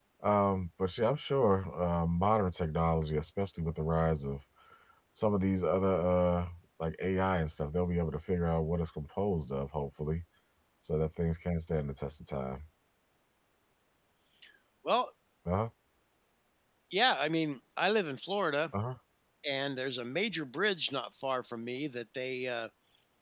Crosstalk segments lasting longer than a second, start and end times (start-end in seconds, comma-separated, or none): none